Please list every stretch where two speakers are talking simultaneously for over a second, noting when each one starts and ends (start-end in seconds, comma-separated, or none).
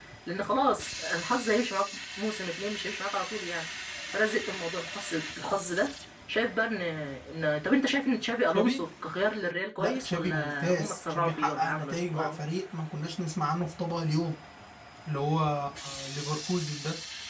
9.8-12.3